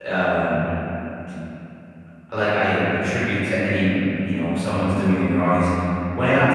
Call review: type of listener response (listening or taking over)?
listening